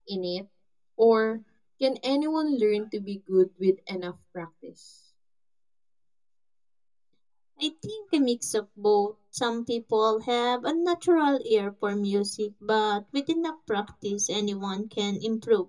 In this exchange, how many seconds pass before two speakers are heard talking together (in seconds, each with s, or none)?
none